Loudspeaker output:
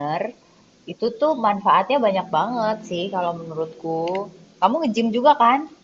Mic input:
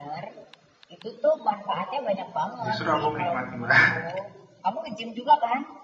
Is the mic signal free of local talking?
No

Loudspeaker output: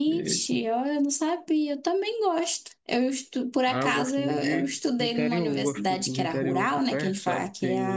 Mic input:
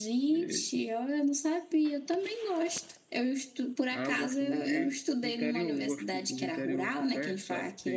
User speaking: No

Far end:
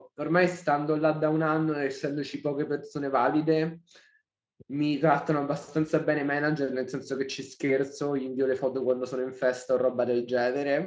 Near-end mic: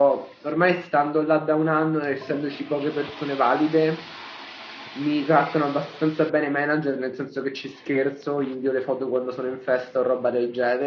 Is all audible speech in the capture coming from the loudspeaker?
Yes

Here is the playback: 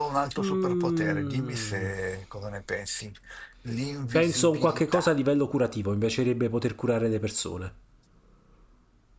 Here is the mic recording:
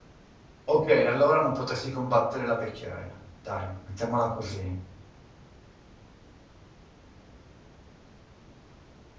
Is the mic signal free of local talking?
No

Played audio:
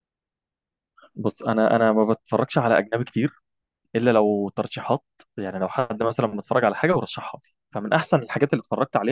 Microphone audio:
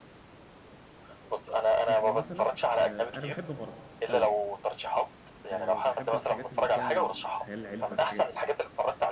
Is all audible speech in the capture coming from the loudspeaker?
No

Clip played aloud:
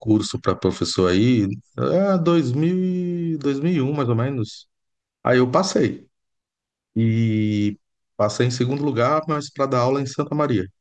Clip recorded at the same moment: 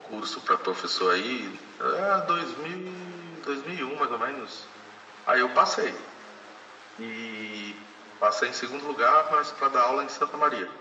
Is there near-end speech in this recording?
No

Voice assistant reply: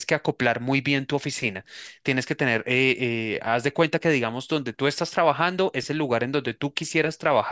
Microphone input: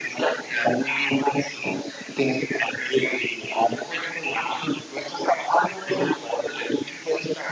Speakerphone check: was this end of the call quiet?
Yes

